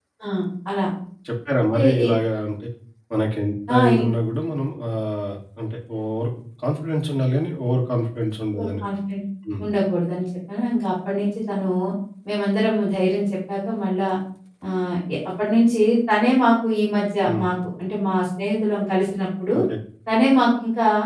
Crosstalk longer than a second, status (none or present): none